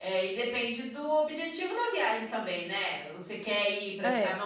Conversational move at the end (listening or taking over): listening